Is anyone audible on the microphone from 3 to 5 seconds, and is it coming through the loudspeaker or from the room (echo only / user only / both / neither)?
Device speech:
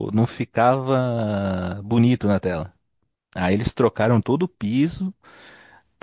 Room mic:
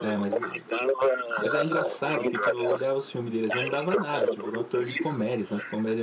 both